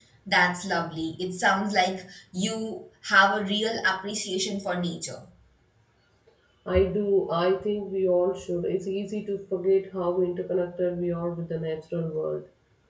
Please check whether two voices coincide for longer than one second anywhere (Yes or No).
No